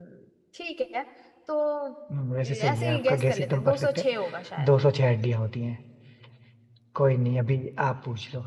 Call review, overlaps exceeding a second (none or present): present